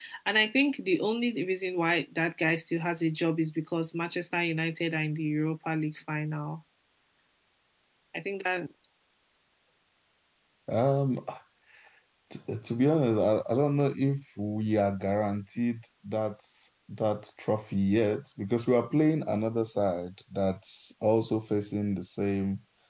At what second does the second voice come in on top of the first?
none

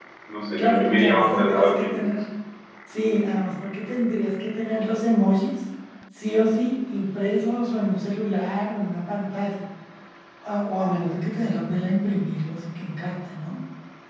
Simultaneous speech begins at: 0.6 s

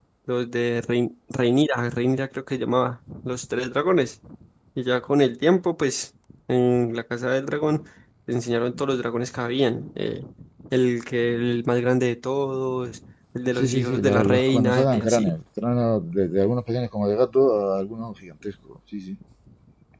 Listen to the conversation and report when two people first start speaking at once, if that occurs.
13.6 s

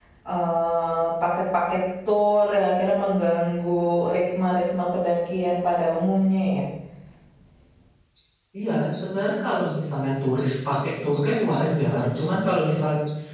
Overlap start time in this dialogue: none

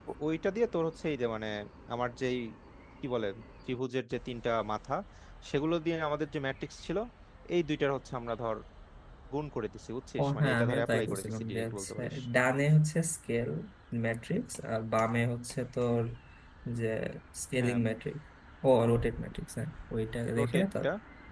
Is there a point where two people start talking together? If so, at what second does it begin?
10.2 s

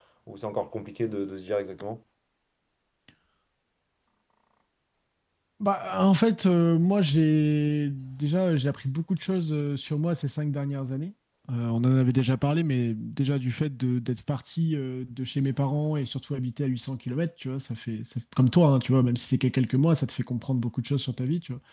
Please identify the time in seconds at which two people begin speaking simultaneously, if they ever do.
none

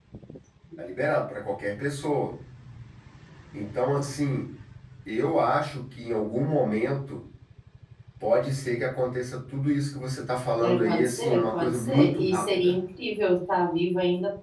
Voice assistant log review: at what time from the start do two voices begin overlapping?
10.6 s

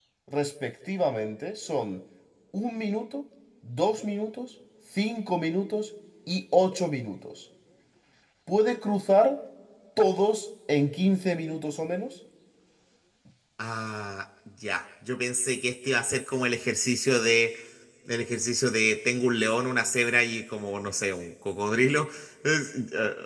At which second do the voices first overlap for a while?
none

